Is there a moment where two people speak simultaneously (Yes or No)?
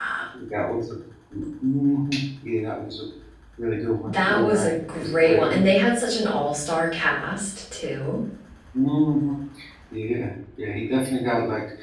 Yes